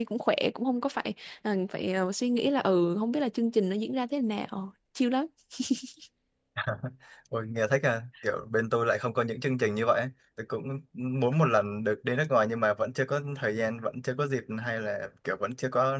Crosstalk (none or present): none